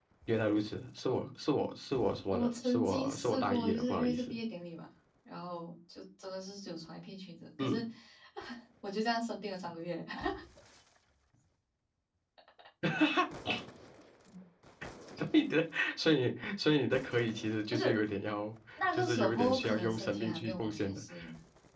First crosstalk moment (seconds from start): 2.3 s

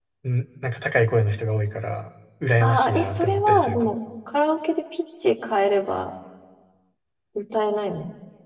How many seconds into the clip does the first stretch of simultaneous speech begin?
2.6 s

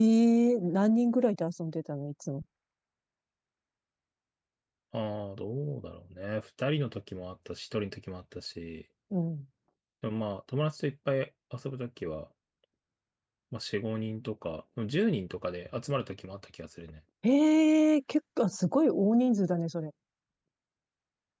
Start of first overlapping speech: none

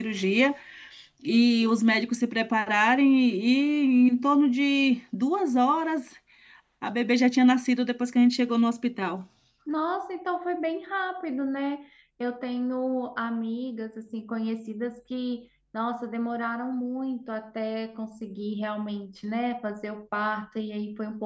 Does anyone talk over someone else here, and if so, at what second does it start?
none

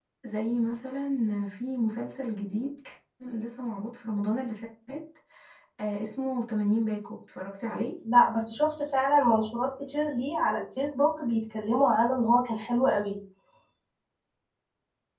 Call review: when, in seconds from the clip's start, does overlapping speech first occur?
none

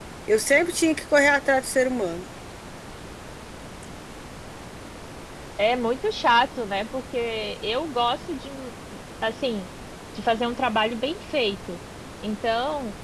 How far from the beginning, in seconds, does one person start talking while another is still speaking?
none

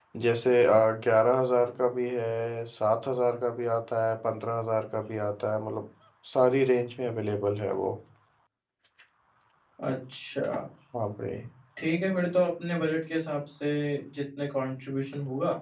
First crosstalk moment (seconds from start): none

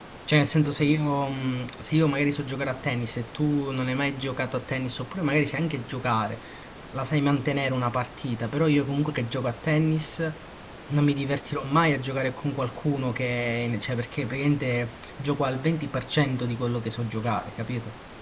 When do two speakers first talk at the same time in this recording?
none

